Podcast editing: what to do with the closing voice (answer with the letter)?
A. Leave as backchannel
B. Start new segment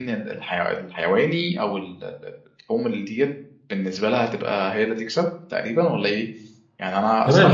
B